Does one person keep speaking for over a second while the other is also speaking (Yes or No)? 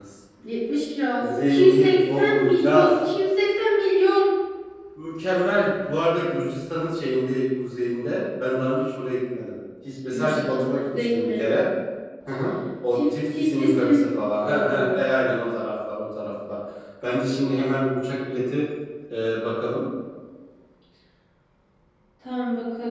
Yes